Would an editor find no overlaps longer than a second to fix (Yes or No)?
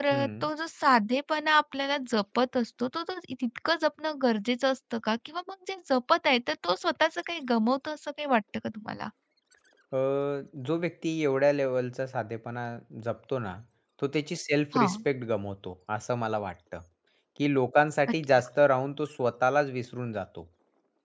Yes